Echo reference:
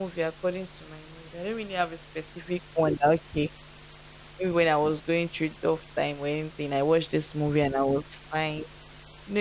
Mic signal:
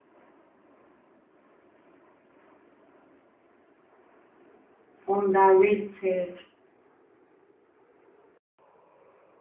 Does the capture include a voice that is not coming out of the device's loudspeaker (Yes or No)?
Yes